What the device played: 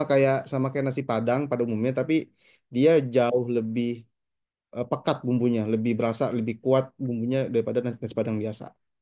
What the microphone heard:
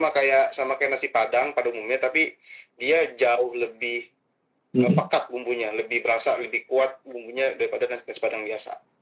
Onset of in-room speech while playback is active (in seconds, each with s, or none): 4.7 s